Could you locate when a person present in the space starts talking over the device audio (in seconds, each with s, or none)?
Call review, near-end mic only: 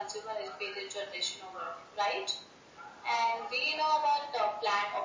none